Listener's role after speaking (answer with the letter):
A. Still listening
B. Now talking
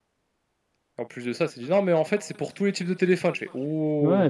B